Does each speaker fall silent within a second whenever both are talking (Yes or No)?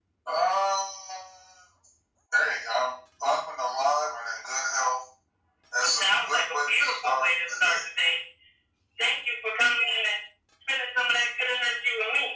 No